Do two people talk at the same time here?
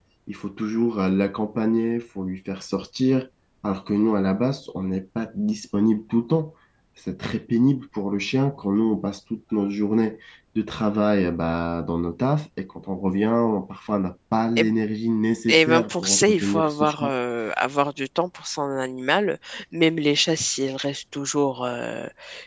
Yes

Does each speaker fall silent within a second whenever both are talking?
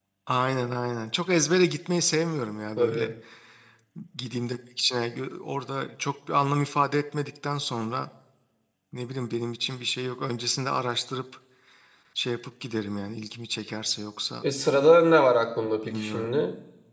Yes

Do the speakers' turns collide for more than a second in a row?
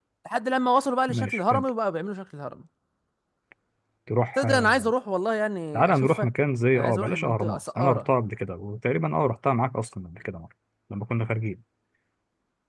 Yes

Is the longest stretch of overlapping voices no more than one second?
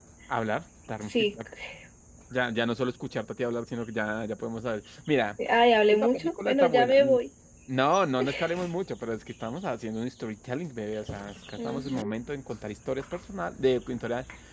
No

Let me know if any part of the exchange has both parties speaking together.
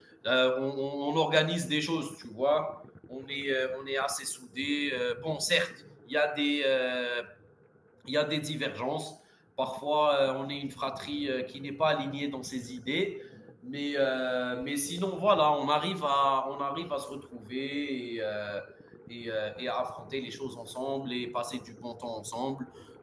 No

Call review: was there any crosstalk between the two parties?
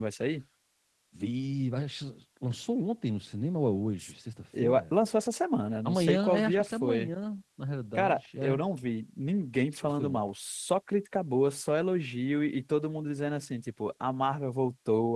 Yes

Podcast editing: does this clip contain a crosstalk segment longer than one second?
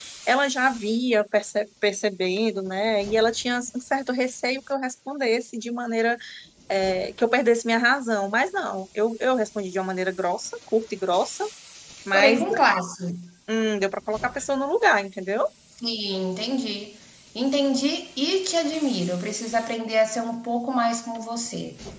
No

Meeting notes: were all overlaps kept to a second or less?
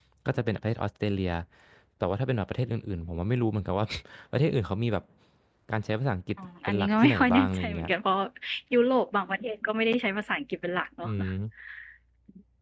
No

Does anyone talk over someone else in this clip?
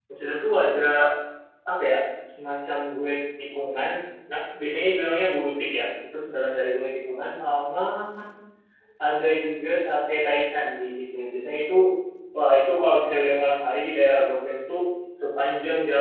No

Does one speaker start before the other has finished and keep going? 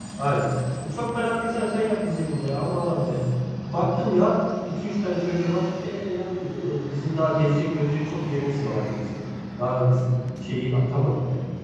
No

